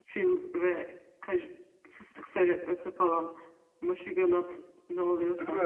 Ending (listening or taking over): taking over